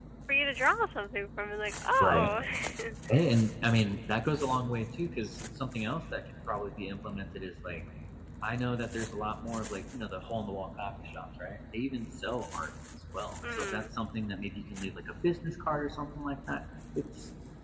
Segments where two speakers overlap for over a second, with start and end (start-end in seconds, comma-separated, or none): none